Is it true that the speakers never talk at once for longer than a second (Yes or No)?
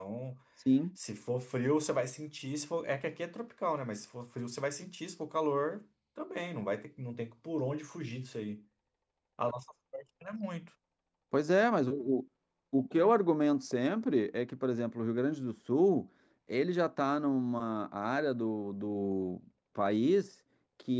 Yes